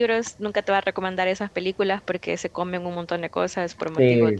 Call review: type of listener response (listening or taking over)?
taking over